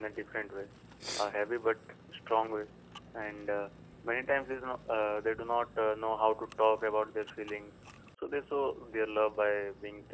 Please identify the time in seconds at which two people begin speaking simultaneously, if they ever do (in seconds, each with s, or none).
none